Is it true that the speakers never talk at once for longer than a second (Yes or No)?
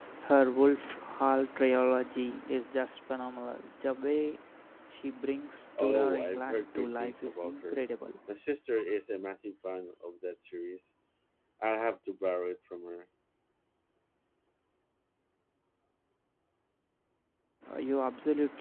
No